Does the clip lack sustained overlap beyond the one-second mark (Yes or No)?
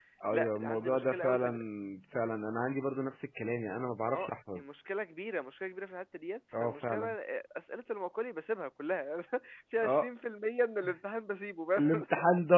No